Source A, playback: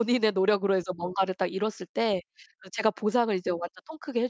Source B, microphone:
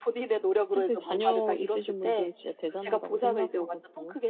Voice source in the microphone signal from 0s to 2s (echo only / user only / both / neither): both